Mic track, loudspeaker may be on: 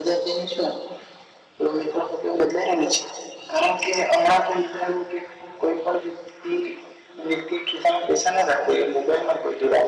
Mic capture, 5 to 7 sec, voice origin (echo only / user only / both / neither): echo only